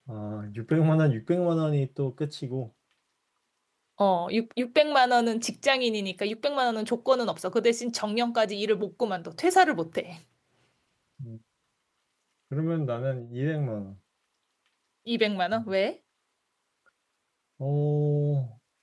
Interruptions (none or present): none